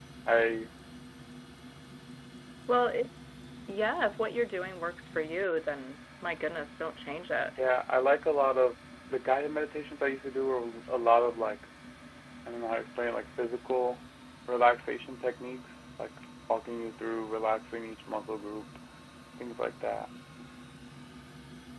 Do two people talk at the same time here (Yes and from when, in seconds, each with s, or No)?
No